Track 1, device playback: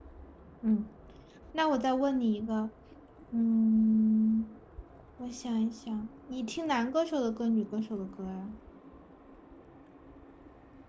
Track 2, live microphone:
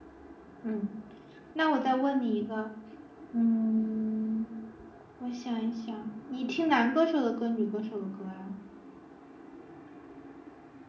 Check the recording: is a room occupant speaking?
No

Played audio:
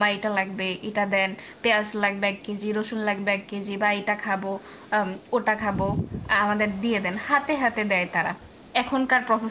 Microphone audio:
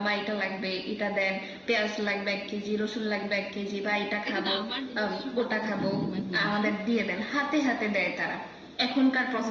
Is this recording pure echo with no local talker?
No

